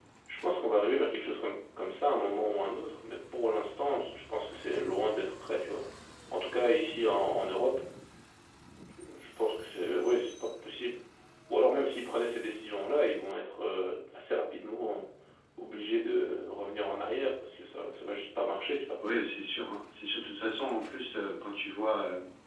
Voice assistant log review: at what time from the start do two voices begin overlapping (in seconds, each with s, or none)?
none